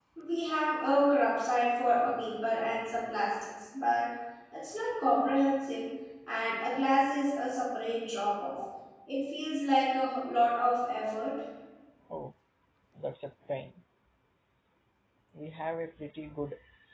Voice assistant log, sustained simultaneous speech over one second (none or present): none